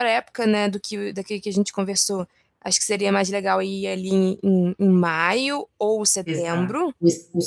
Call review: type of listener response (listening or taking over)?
taking over